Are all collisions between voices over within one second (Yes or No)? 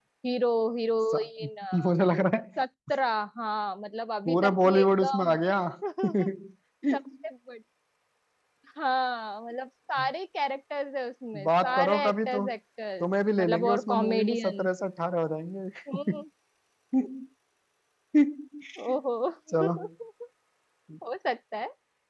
No